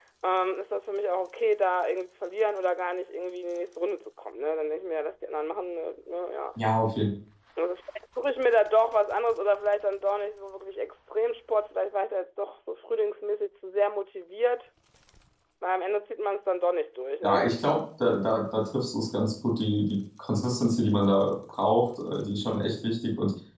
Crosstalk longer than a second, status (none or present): none